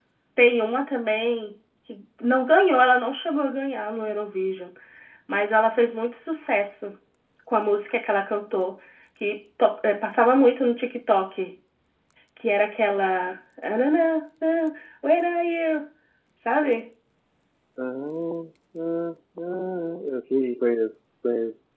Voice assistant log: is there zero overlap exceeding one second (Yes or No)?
Yes